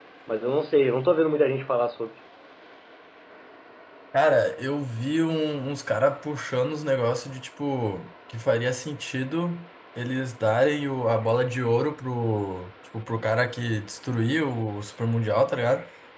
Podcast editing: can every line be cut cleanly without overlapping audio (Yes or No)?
Yes